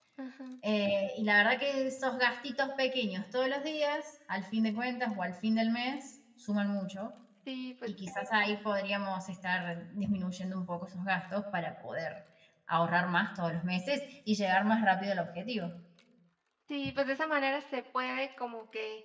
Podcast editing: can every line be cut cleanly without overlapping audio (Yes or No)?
Yes